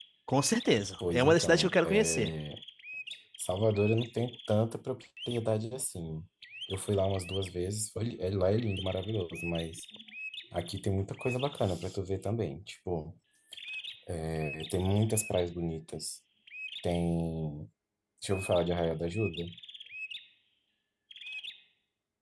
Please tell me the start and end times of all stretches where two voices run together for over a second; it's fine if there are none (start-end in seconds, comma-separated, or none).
1.1-2.3